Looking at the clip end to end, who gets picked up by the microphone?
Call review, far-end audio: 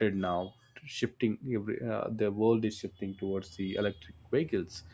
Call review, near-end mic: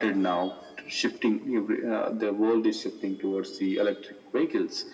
echo only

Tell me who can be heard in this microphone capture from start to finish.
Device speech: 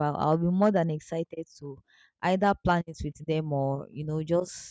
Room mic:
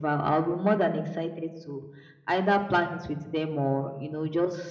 echo only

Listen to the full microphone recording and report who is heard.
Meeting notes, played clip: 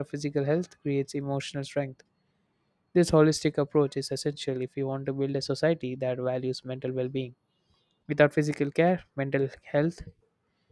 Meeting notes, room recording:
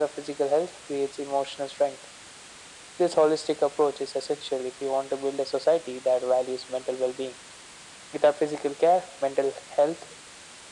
echo only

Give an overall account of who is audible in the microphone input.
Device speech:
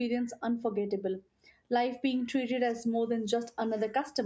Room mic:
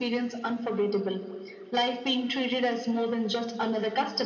echo only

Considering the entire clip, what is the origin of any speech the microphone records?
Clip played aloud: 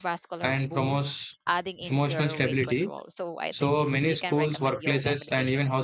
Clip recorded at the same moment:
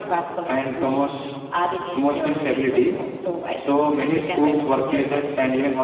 echo only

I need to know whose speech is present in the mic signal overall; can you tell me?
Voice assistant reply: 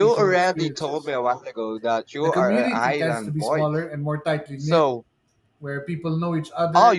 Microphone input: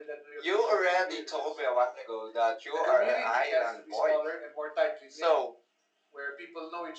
echo only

